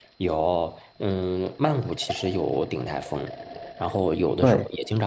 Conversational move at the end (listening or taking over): listening